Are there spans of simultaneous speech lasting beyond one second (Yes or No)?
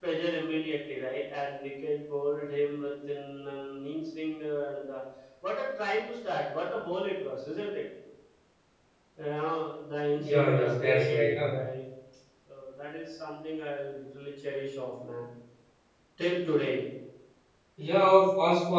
Yes